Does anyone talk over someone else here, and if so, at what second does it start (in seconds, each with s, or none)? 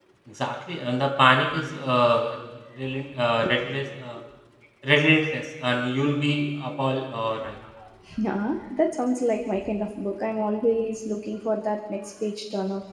none